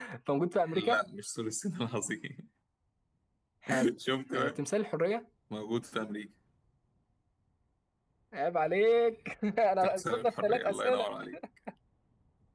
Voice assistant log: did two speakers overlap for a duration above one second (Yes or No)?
Yes